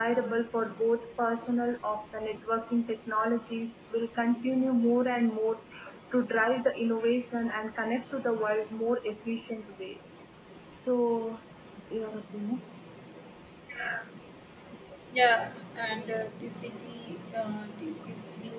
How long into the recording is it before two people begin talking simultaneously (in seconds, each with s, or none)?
none